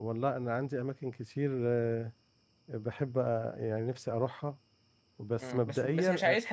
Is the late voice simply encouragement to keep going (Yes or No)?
No